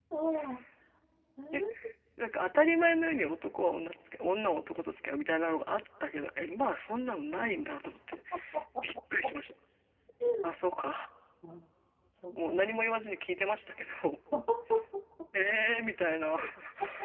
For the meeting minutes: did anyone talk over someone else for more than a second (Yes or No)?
No